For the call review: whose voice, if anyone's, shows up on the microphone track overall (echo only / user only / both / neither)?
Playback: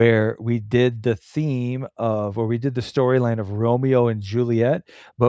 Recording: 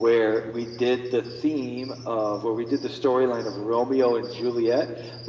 echo only